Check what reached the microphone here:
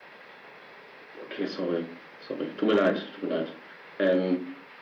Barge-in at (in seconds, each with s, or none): none